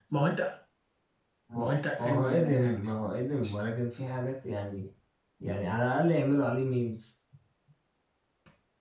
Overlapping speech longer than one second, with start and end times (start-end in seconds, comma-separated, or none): 1.6-2.9